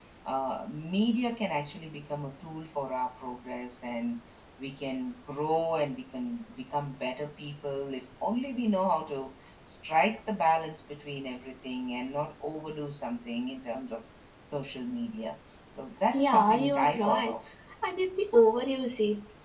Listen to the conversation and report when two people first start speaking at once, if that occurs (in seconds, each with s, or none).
16.1 s